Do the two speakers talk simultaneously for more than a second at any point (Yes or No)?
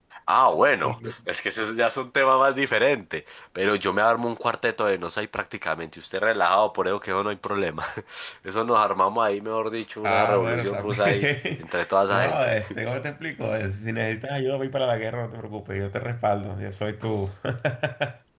Yes